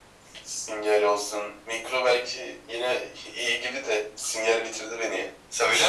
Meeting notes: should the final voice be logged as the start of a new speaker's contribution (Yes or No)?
Yes